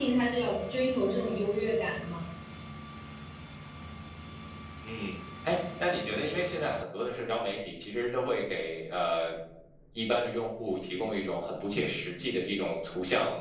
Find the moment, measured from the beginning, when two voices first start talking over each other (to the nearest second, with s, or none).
none